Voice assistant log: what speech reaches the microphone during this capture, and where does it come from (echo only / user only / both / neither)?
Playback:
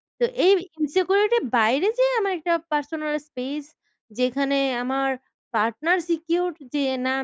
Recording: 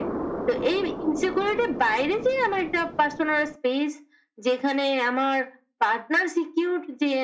echo only